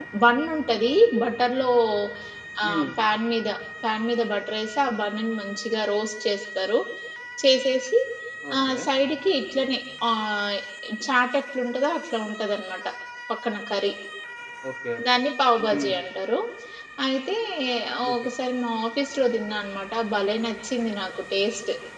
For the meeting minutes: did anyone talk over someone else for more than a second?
No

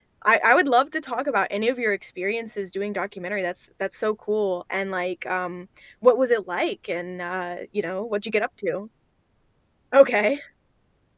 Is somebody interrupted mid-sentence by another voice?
No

